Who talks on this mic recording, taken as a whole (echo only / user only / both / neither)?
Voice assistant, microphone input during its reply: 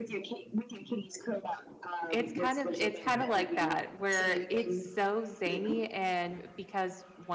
both